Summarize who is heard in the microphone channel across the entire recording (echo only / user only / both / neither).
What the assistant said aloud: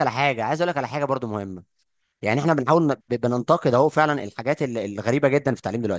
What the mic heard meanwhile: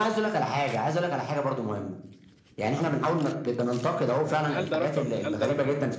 both